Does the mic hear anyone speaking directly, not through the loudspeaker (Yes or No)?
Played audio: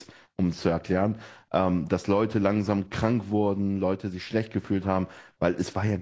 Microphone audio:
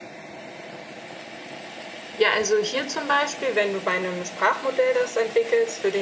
Yes